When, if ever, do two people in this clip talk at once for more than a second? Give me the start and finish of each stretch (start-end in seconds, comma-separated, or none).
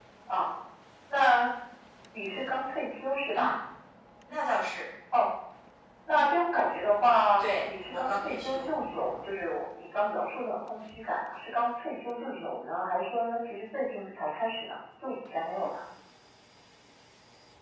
7.4-8.7